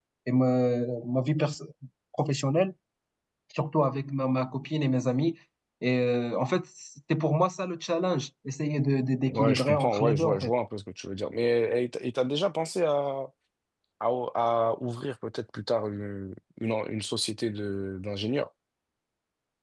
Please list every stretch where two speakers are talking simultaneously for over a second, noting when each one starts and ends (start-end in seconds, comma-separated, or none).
9.2-10.5